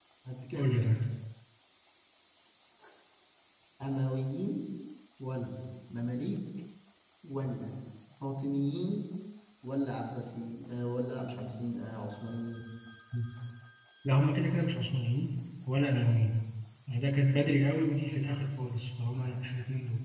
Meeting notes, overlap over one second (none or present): none